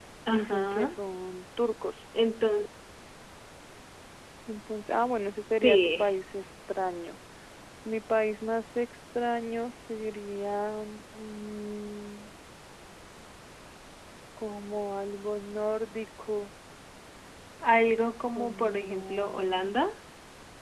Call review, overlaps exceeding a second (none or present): present